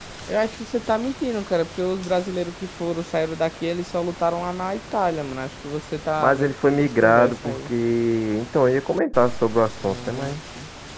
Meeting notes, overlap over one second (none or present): present